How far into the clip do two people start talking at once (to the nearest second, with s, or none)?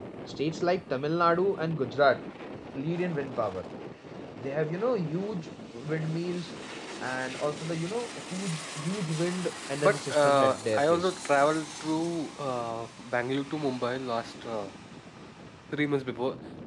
10 s